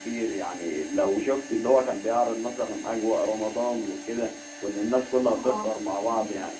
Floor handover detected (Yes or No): No